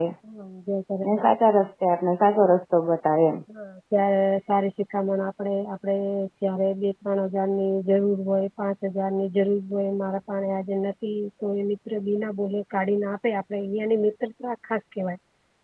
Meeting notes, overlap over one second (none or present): none